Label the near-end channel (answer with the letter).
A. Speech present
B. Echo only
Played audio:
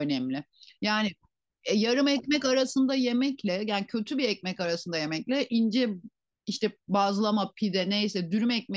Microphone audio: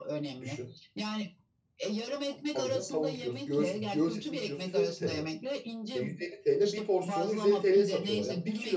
A